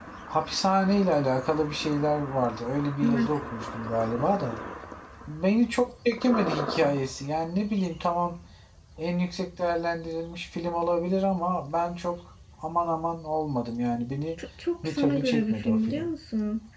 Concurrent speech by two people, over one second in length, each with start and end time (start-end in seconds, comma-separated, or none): 14.8-16.1